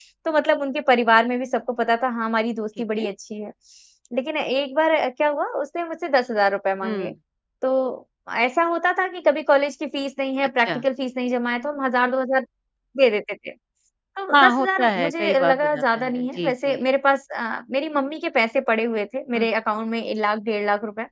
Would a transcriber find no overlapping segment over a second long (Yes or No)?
No